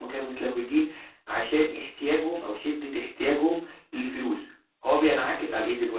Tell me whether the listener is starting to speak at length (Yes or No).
No